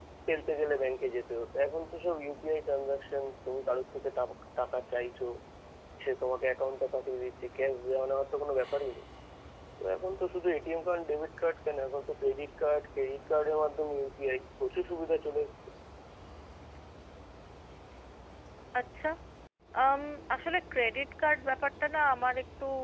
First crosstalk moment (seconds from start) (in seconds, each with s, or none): none